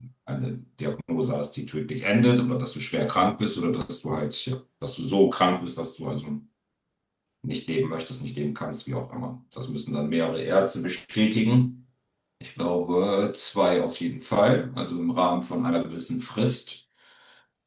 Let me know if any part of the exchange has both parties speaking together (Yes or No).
No